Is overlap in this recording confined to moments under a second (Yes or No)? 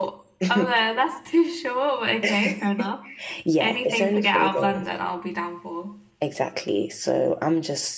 No